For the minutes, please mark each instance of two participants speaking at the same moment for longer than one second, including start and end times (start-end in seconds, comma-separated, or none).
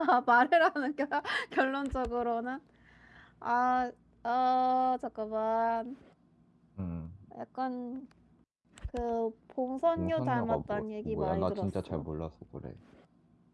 9.9-12.0